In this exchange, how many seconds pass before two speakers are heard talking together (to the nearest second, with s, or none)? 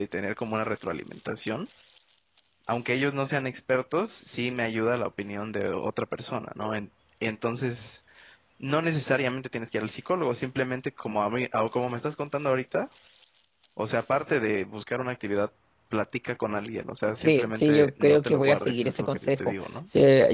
17 s